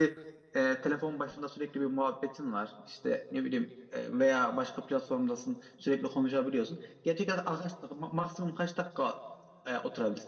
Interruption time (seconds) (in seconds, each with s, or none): none